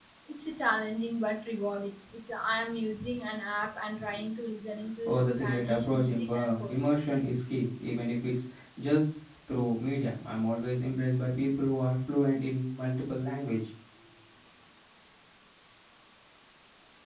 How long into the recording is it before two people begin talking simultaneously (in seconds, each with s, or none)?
5.0 s